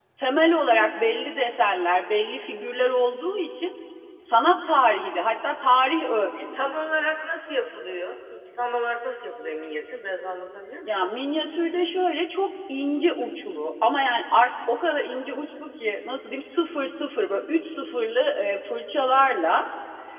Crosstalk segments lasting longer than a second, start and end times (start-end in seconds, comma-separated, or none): none